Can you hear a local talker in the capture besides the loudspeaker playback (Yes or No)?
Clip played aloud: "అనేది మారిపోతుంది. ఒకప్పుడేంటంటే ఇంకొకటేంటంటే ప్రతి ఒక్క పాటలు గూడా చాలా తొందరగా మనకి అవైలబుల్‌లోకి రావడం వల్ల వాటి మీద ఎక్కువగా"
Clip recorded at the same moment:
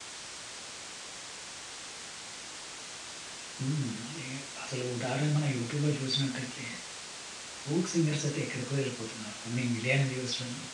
Yes